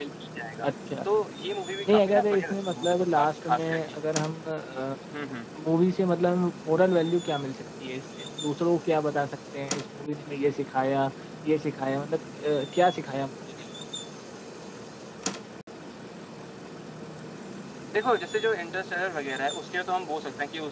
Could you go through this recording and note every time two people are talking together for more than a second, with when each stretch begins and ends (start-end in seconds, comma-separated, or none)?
1.8-4.0